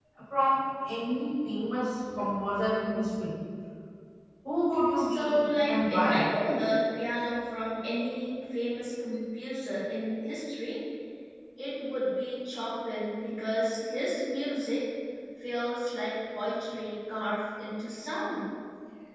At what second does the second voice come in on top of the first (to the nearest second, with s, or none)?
5 s